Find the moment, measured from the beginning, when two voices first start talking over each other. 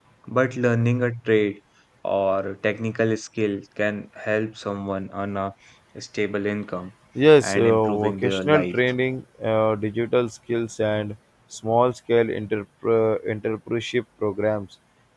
7.4 s

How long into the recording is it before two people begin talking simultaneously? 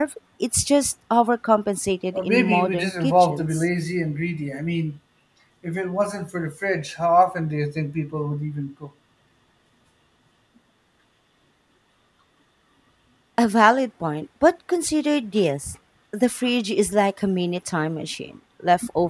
2.1 s

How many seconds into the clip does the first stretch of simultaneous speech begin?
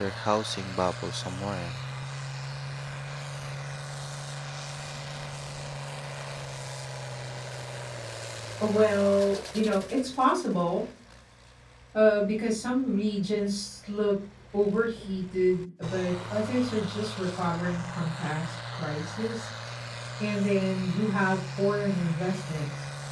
none

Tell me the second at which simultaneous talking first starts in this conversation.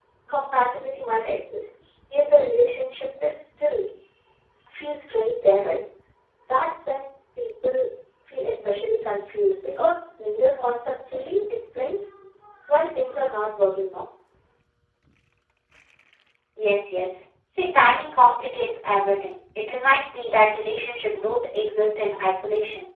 none

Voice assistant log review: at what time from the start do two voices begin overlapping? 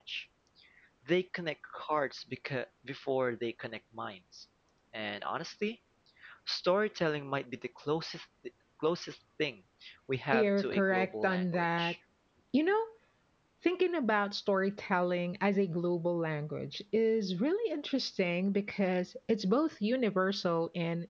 10.3 s

